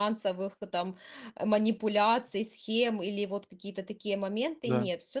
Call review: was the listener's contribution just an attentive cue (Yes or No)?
Yes